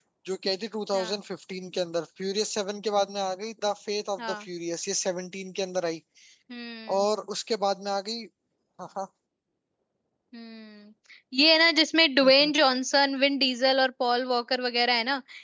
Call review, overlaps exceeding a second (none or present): none